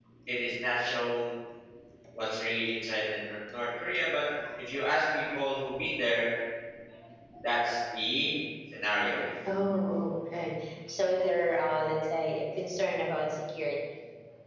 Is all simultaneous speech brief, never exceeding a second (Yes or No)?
Yes